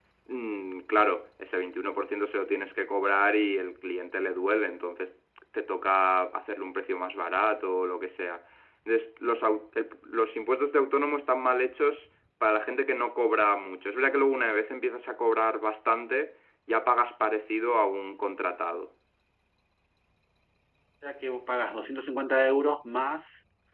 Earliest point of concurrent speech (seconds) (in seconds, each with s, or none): none